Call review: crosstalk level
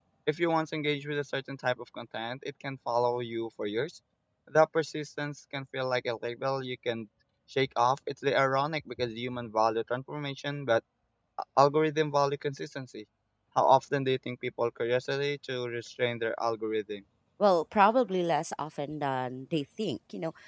none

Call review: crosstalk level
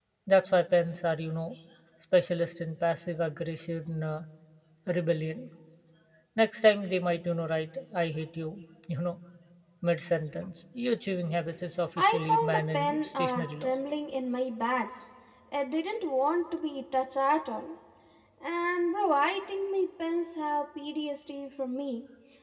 present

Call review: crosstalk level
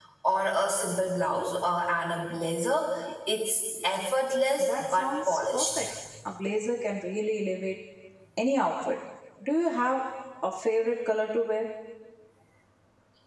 present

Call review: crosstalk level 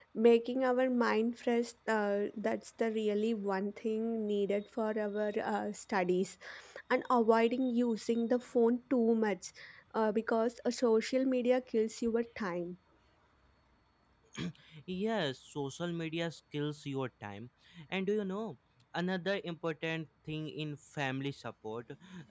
none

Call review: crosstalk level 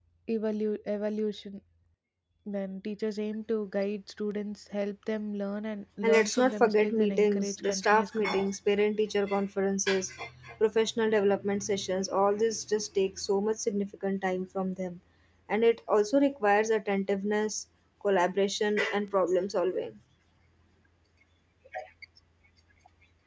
present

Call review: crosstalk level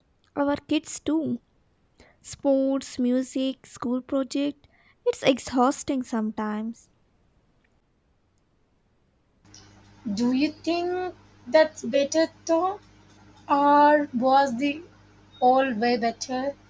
none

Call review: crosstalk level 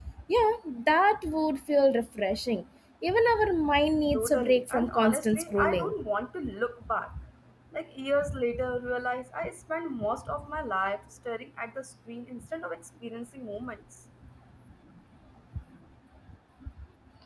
present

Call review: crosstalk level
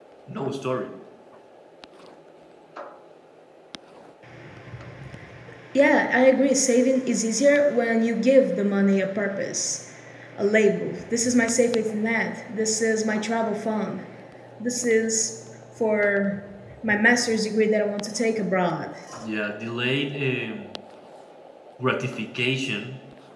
none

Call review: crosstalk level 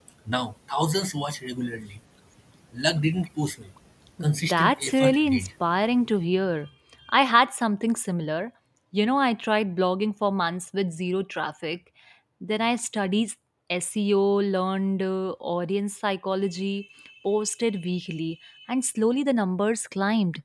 present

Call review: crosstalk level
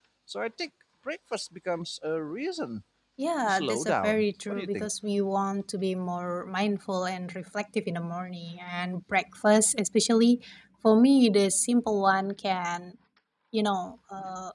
present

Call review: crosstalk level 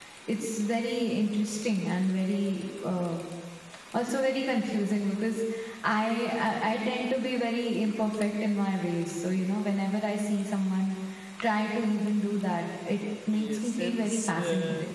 present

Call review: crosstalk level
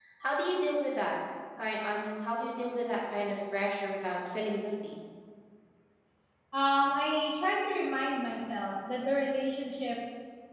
none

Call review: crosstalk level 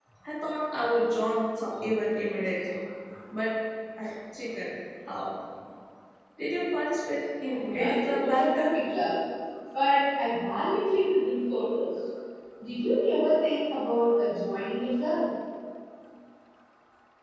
present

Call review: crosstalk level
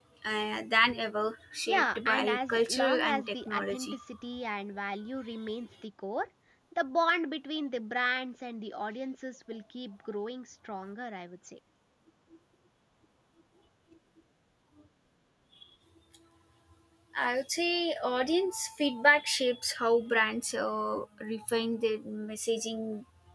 present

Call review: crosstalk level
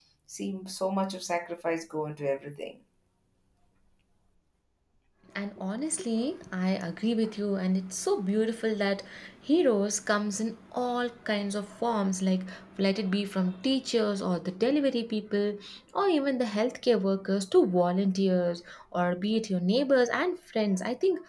none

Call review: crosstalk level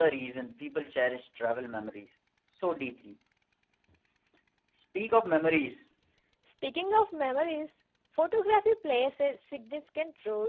none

